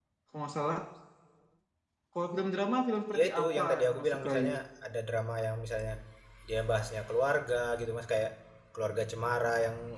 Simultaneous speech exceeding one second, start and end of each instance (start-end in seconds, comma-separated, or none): 3.2-4.4